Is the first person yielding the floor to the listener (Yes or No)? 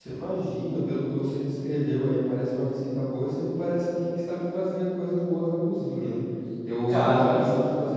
No